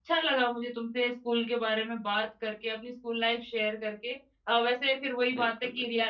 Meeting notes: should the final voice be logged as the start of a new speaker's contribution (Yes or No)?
No